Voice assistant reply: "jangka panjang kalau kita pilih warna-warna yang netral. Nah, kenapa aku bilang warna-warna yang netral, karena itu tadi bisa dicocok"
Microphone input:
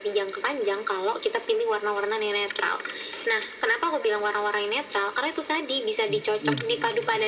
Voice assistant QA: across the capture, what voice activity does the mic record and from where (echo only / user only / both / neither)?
both